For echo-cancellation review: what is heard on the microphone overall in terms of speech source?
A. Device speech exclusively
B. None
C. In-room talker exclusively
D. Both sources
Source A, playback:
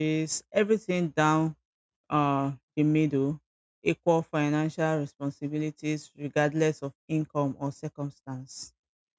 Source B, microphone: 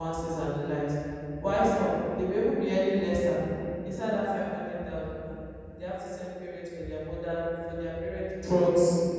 C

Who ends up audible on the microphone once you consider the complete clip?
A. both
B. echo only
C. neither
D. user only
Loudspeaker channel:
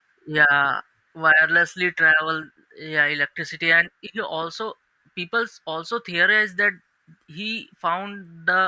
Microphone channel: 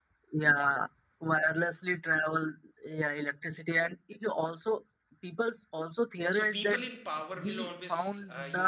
A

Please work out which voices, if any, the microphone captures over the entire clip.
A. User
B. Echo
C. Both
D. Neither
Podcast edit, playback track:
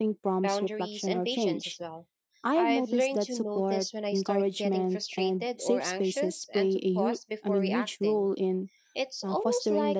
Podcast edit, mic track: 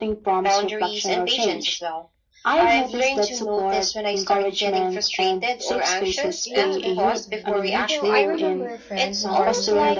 C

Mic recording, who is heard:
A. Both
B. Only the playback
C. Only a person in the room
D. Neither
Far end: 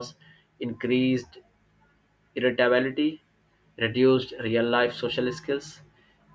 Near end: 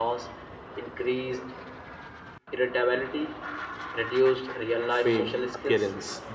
A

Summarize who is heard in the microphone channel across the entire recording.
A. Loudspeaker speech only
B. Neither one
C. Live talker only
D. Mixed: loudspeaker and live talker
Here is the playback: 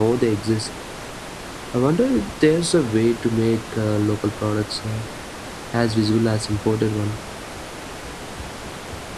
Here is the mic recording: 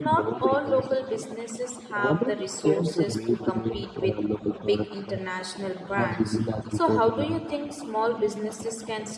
D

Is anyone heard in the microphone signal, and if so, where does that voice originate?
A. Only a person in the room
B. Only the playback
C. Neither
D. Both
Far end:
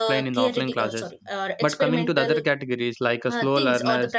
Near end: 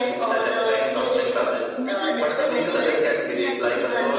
D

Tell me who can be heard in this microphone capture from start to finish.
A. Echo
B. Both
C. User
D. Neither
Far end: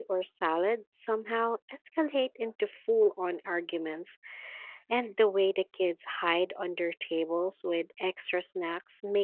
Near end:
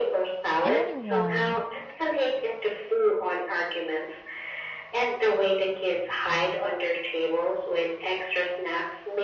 B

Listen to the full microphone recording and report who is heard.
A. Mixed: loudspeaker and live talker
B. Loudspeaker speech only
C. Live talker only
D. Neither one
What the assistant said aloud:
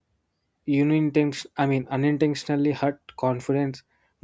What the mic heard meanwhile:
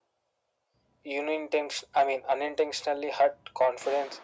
B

